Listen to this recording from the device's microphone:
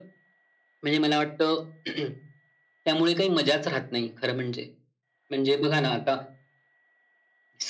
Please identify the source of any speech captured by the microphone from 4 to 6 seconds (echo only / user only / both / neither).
echo only